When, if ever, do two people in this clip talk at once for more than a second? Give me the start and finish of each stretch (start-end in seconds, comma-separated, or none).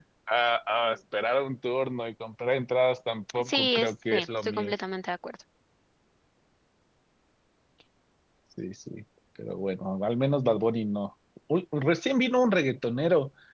3.4-4.7